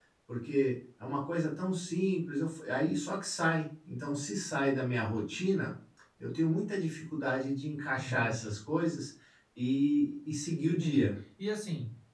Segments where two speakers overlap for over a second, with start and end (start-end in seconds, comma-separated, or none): none